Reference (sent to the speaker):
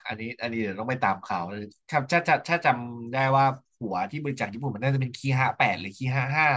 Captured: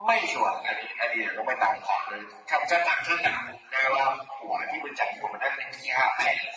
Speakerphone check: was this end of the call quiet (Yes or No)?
Yes